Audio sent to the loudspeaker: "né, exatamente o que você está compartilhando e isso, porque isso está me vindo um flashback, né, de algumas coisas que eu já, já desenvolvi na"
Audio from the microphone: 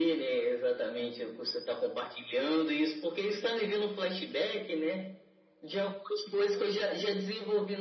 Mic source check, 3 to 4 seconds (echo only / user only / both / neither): echo only